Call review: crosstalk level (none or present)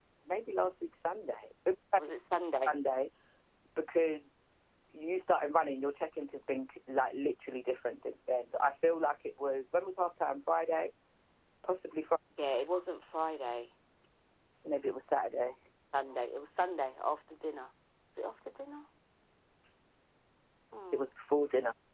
none